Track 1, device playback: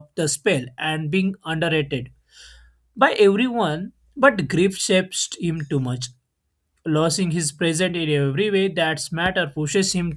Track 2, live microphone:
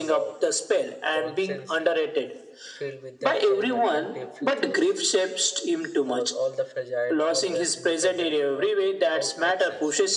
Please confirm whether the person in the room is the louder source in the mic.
No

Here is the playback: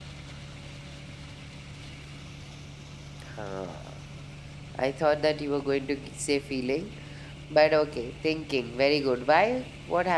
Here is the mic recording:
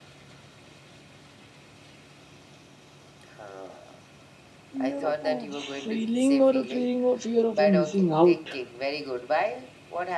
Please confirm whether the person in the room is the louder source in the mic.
Yes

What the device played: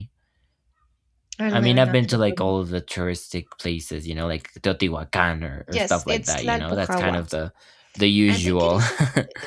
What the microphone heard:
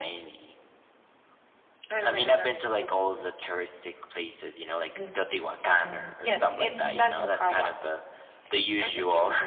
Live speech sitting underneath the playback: Yes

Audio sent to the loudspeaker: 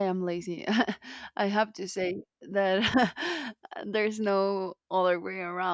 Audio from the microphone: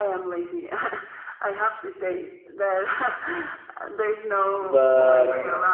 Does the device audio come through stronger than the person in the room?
No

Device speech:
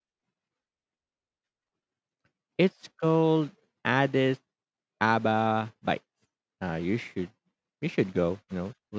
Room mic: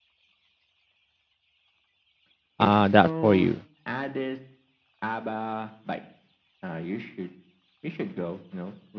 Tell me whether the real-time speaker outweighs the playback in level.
Yes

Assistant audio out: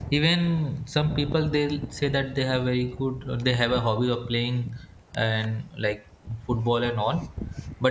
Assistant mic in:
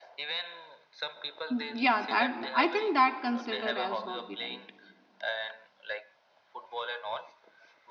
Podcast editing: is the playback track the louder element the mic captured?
No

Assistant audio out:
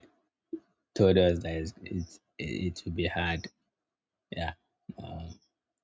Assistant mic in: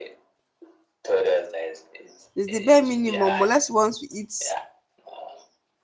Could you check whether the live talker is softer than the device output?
No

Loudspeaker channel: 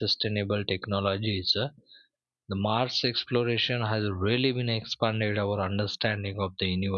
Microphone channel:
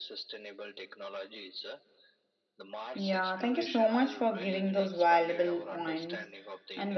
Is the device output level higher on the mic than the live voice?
No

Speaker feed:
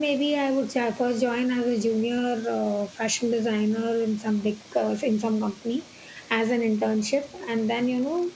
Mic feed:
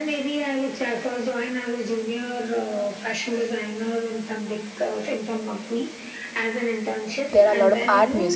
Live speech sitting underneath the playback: No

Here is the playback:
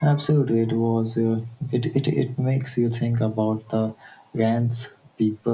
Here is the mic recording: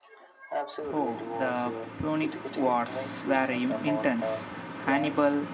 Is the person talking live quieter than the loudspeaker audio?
No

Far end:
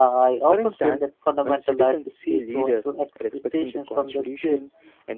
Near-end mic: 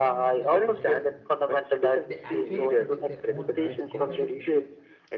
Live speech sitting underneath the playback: Yes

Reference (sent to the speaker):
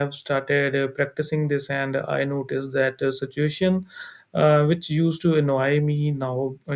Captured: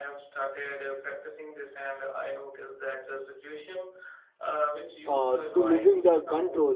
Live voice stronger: Yes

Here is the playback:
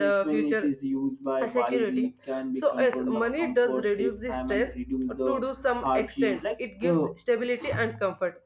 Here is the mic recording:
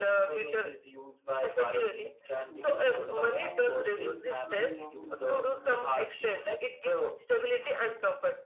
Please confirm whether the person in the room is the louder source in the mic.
No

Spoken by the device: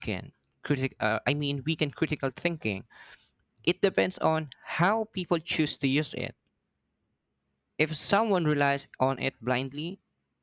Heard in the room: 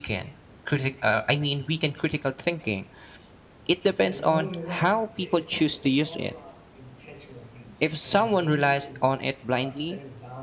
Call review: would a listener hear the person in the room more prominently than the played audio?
No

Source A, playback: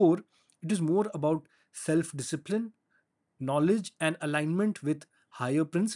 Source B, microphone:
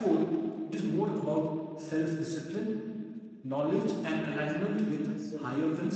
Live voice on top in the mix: No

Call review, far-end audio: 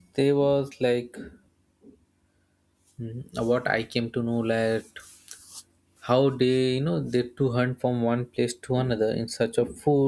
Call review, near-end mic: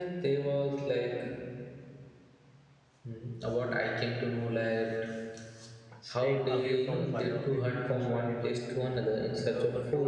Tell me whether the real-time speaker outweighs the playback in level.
No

